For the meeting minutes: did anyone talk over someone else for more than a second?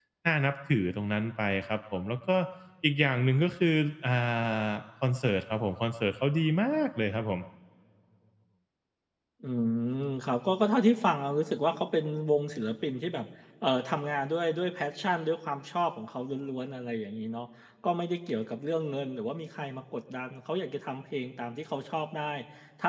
No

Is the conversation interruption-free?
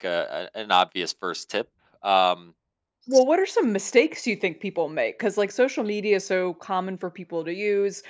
Yes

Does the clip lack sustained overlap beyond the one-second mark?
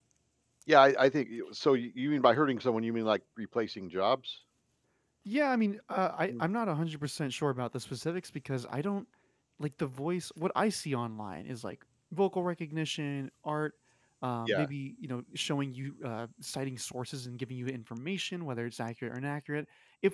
Yes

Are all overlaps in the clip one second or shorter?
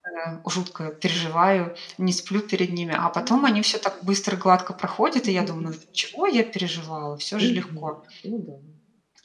Yes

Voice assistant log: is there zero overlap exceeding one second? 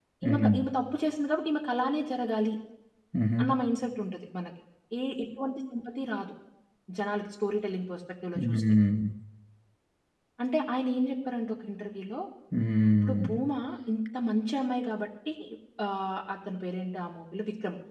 Yes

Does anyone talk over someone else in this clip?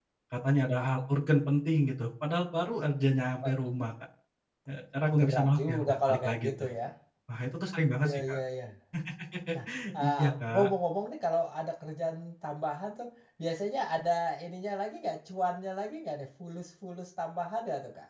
Yes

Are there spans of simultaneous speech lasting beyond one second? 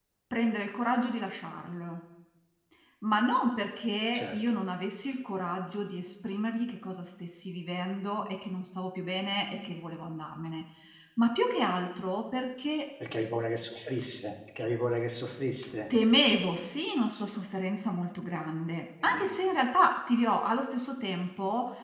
No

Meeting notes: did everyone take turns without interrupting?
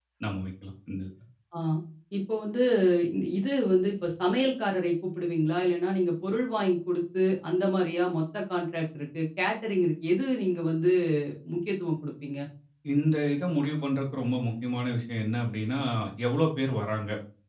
Yes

